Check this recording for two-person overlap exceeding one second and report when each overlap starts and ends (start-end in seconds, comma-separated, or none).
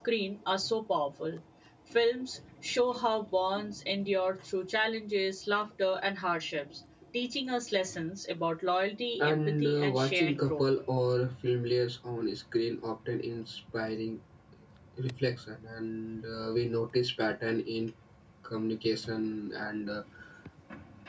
9.2-10.7